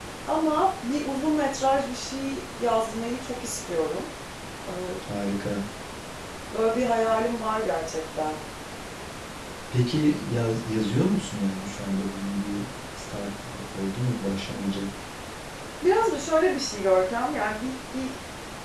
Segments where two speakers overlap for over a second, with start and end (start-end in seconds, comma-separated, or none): none